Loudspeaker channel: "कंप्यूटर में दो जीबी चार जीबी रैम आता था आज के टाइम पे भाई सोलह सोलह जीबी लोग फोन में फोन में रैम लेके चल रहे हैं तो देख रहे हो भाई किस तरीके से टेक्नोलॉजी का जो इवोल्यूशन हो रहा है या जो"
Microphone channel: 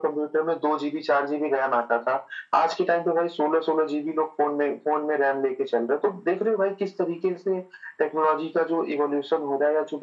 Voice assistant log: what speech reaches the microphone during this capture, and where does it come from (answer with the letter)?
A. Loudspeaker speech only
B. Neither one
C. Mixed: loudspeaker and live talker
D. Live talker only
A